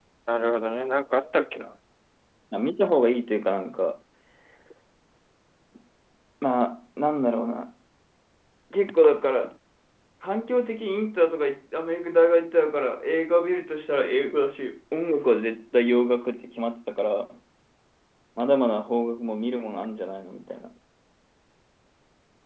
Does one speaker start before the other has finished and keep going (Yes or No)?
No